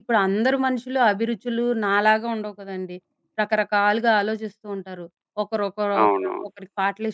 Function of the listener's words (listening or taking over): listening